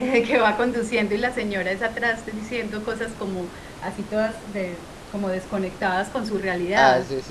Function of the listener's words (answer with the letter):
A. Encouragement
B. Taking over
B